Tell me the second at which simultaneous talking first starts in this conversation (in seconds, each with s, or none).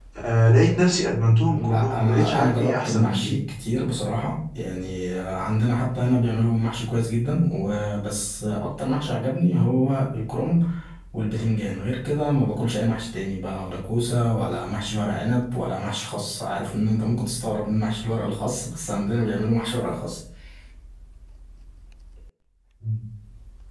1.5 s